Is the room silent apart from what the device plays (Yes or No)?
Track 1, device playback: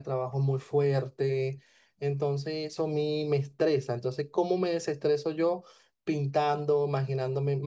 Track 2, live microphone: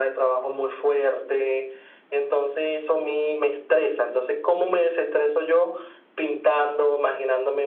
Yes